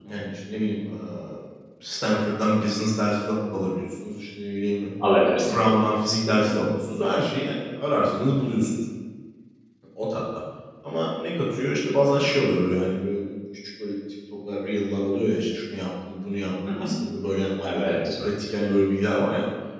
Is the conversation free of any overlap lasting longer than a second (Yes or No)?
Yes